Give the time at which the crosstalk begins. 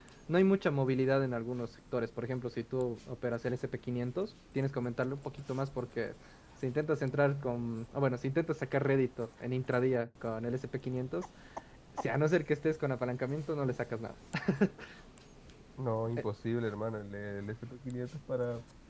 none

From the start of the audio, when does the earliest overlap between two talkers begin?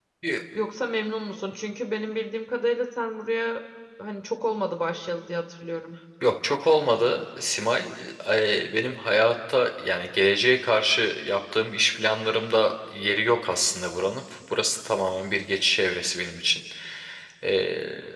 none

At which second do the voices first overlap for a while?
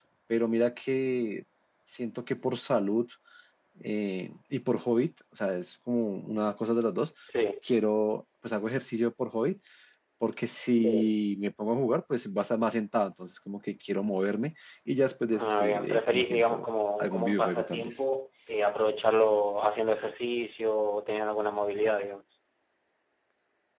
15 s

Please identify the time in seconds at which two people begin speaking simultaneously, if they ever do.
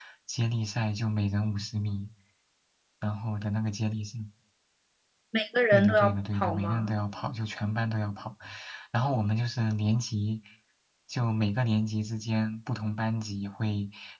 6 s

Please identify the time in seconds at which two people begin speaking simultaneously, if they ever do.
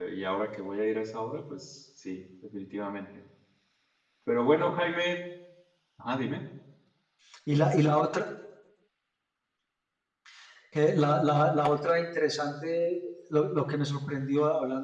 none

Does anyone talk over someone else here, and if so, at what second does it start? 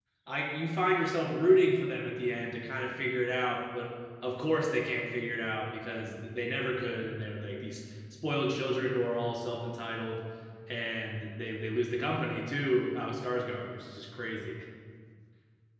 none

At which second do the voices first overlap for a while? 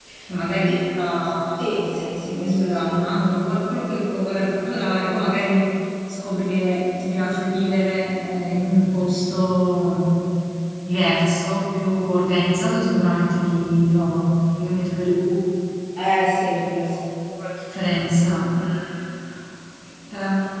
2 s

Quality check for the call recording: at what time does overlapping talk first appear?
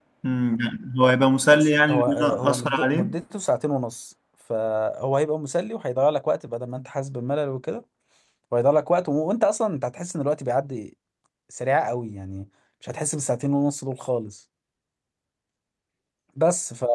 2 s

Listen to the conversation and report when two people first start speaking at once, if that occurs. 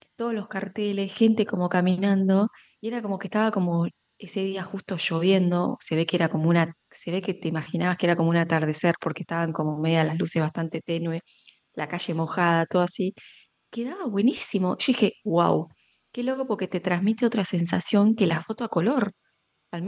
none

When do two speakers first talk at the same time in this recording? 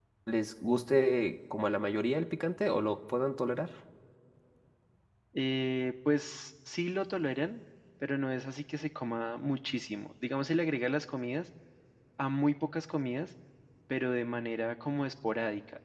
none

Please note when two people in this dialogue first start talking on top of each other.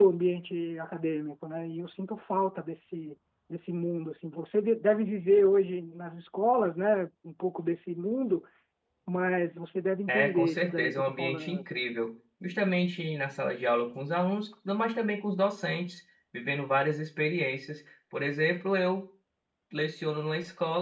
10 s

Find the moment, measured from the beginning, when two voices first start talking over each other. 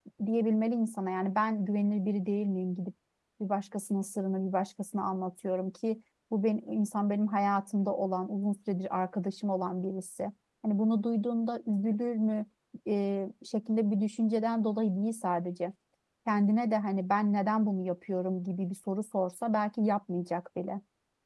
none

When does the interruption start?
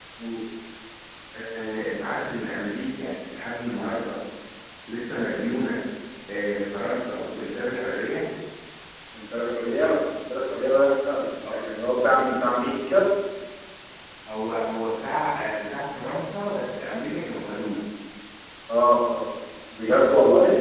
none

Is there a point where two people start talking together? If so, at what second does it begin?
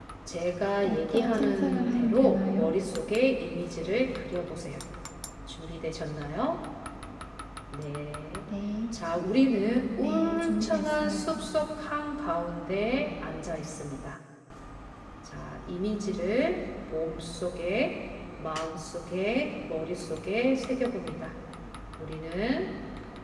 1 s

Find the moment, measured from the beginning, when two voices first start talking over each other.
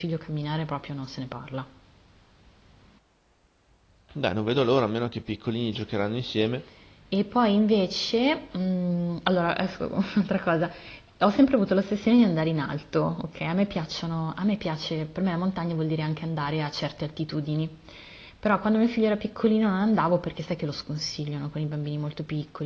none

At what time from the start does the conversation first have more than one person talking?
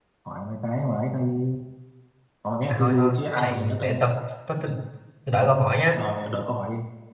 3 s

